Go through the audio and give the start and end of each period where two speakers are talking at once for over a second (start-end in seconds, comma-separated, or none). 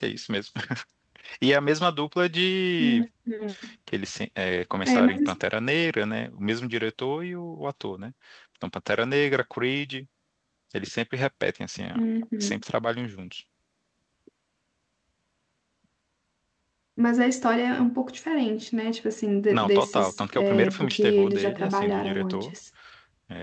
19.5-22.5